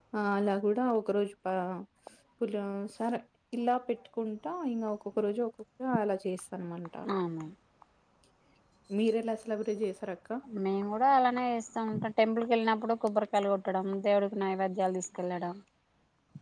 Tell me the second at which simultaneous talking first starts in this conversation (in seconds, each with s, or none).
none